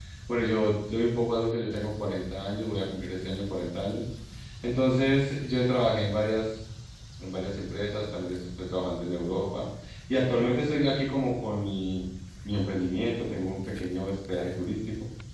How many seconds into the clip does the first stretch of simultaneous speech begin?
none

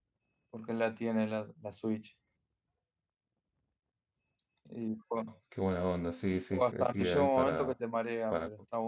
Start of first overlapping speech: 6.5 s

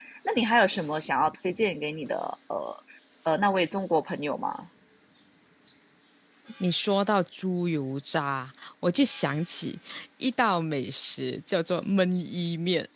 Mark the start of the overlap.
none

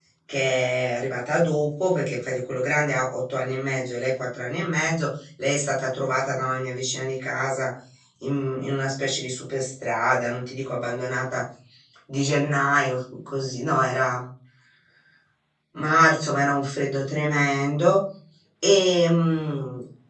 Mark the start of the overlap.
none

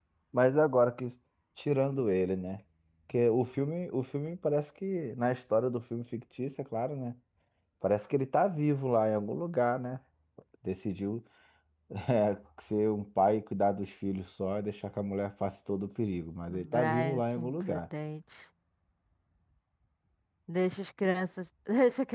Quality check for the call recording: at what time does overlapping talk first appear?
16.5 s

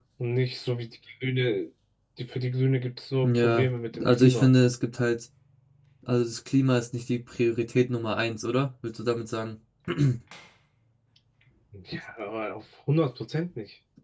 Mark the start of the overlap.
3.2 s

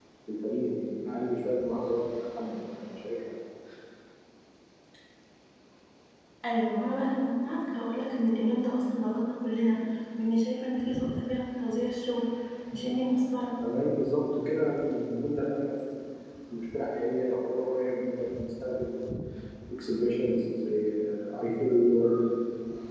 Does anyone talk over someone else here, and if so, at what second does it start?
none

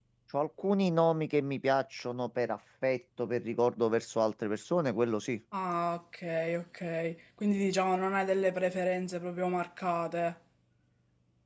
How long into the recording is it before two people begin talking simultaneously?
none

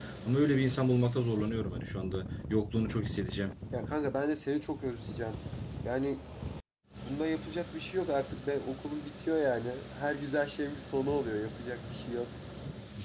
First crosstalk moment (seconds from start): none

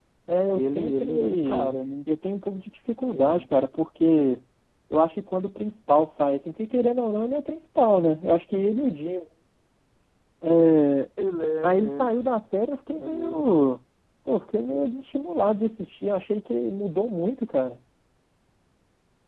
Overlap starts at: 0.5 s

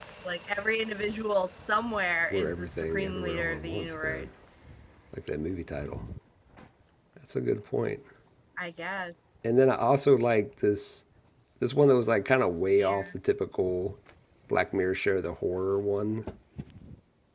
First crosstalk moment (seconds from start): 2.3 s

